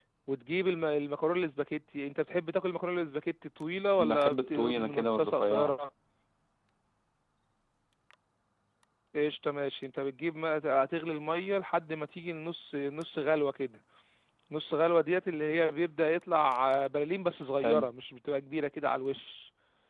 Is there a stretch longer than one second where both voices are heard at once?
Yes, from 4.0 s

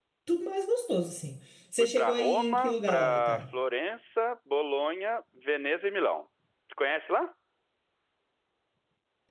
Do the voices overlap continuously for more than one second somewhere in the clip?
Yes, from 1.8 s

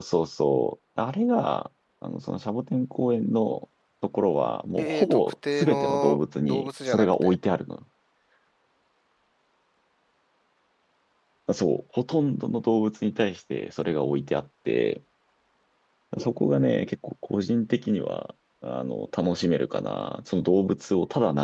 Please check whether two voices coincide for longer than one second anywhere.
Yes, from 4.8 s

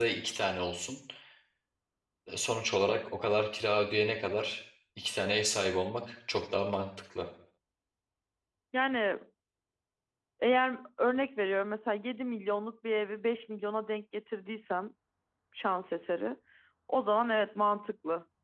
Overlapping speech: No

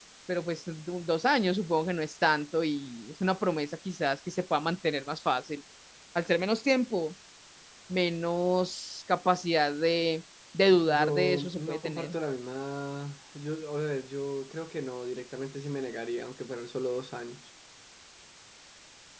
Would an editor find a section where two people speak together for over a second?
Yes, from 10.7 s

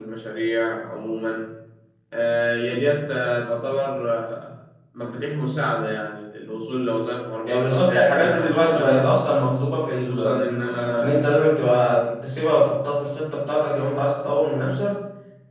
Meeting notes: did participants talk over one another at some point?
Yes, from 7.5 s

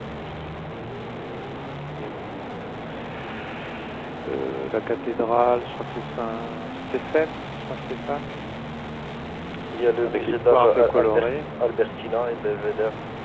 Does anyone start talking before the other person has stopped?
Yes, from 10.0 s

